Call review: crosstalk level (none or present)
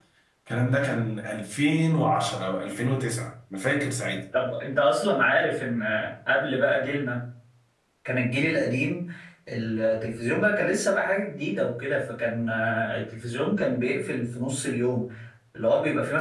none